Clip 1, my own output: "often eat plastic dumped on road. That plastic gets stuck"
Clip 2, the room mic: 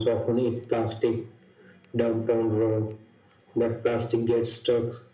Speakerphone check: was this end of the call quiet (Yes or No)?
Yes